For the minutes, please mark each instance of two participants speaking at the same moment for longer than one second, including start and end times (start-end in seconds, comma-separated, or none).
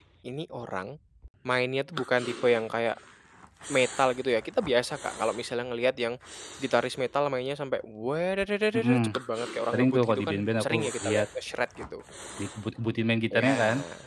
9.7-11.2